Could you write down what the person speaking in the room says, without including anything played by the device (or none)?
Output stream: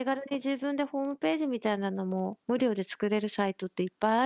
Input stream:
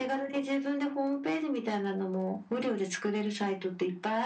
none